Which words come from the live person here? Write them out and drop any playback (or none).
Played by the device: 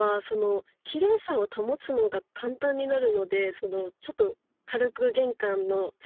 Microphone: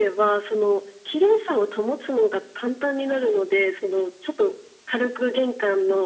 none